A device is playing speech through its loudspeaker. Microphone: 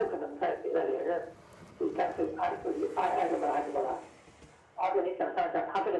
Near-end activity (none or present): none